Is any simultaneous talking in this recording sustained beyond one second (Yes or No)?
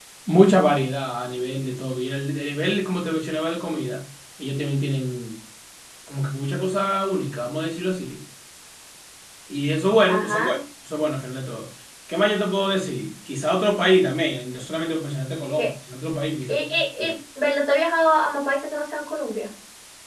No